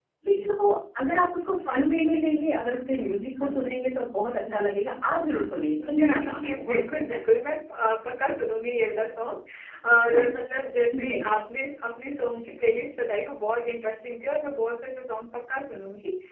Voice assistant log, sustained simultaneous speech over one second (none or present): present